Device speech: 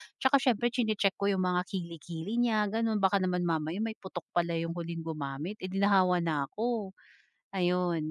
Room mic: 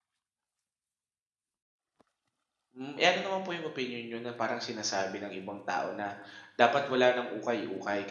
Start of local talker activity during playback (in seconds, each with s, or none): 2.8 s